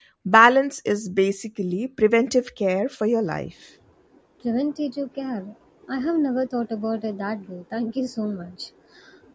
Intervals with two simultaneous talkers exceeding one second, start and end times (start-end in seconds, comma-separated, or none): none